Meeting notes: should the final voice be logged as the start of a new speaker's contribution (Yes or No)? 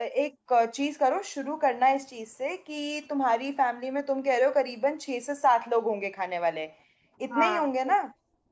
Yes